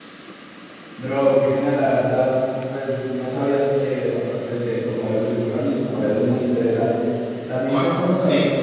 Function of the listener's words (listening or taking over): listening